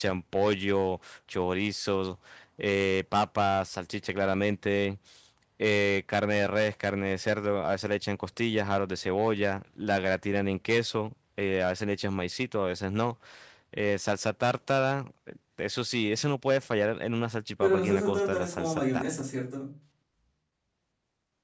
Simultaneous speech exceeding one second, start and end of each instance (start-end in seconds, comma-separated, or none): 17.6-19.1